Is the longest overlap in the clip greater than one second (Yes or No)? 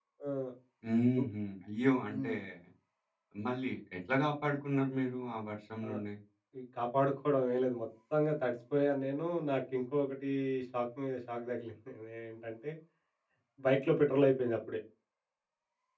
No